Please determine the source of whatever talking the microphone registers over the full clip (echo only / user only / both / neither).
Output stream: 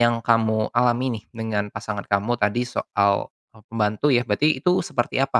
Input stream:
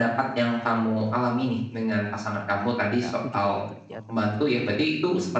both